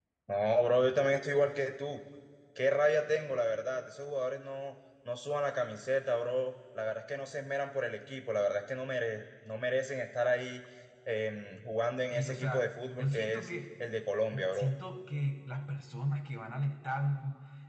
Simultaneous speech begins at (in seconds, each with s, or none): 12.1 s